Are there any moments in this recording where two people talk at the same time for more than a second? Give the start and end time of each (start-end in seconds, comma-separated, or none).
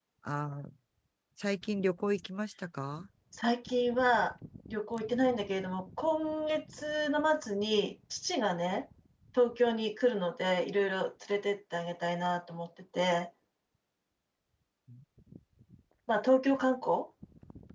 none